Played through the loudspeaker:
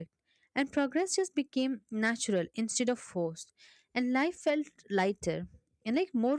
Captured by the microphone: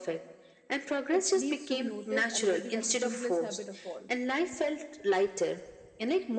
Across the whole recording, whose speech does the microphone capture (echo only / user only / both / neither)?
both